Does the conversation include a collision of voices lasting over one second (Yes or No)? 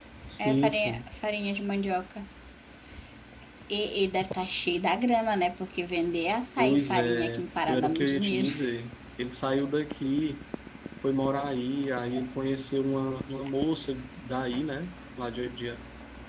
Yes